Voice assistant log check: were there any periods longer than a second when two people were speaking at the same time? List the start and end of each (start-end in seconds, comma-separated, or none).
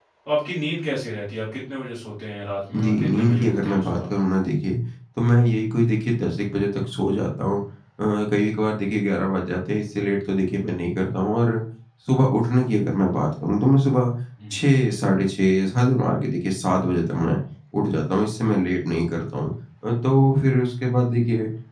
2.7-4.1